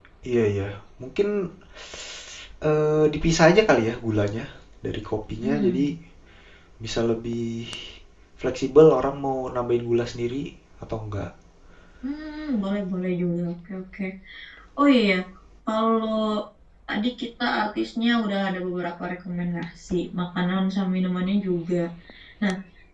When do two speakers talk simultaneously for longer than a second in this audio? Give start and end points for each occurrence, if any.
none

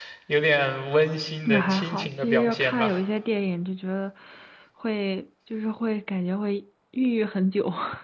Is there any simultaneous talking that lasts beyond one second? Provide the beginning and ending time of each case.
1.4-3.0

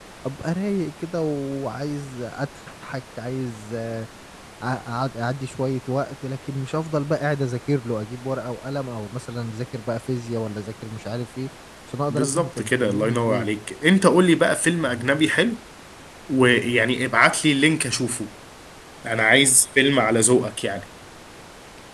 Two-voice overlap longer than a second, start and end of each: 12.1-13.5

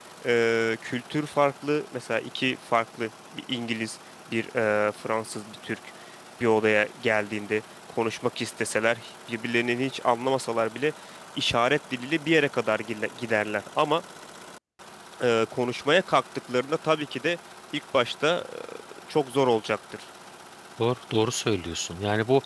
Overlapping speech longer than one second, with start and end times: none

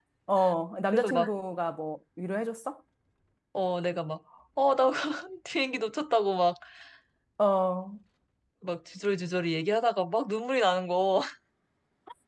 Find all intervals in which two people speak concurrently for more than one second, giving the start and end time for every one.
none

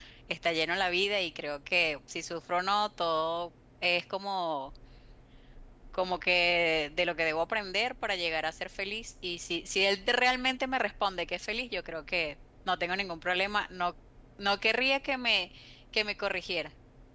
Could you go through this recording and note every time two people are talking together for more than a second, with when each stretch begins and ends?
none

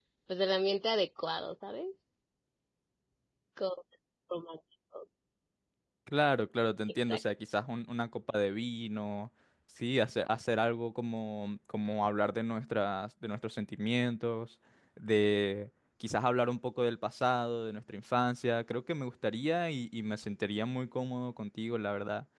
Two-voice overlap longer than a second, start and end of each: none

